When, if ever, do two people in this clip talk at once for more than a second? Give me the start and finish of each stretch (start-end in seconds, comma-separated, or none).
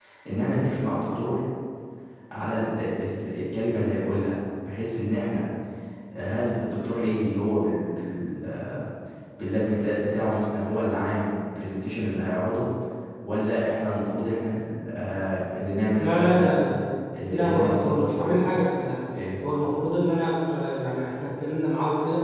17.3-18.5